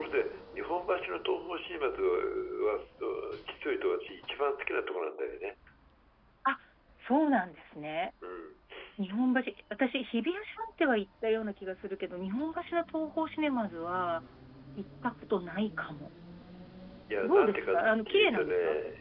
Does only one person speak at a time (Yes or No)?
No